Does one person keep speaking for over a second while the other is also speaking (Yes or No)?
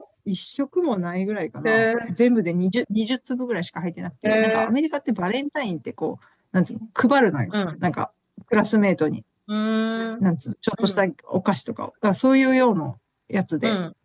No